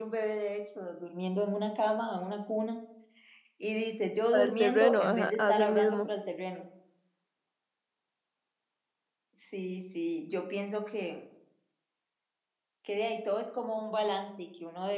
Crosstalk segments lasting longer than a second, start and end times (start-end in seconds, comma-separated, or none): 4.3-6.1